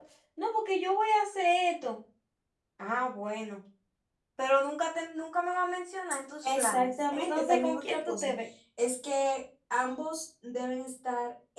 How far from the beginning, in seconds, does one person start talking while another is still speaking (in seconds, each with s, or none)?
6.4 s